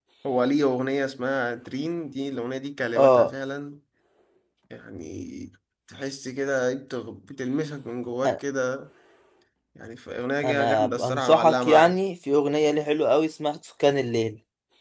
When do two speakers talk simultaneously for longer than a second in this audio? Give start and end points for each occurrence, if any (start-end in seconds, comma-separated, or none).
10.4-12.0